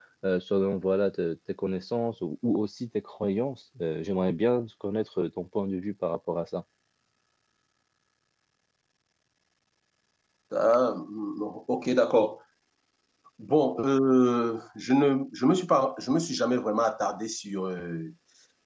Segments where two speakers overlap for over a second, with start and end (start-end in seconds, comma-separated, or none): none